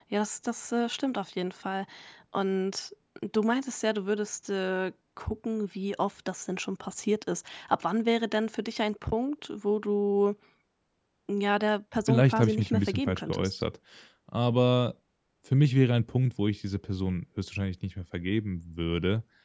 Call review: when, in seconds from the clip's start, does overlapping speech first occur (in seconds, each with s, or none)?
12.1 s